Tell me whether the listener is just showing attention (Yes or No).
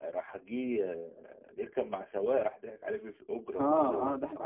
No